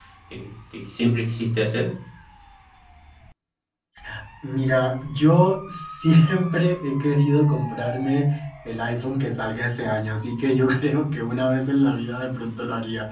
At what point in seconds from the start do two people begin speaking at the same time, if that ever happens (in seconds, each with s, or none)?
none